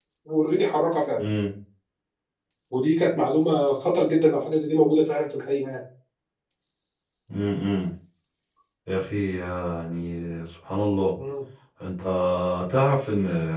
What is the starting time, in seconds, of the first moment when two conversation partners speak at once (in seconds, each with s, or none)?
none